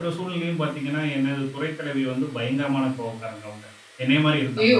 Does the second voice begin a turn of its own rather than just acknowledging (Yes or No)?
No